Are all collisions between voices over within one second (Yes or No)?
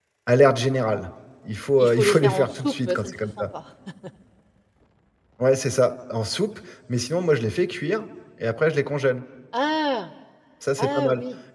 No